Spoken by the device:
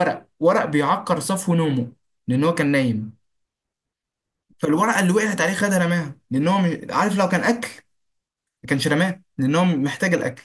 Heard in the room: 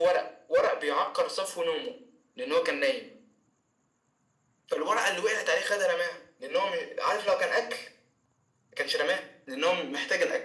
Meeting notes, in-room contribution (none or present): none